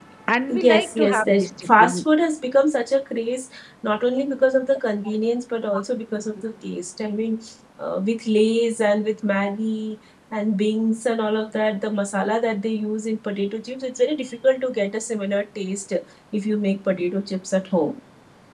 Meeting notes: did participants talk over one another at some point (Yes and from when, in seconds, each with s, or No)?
Yes, from 0.6 s